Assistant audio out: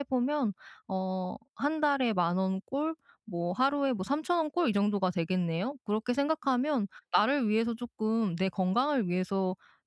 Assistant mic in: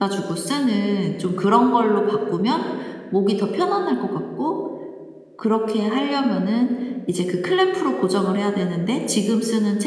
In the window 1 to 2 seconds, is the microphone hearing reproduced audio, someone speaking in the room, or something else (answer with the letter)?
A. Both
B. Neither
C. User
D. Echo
C